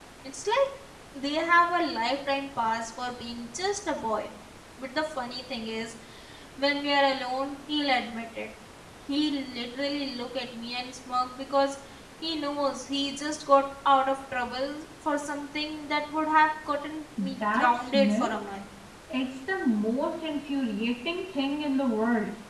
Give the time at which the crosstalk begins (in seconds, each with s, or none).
17.2 s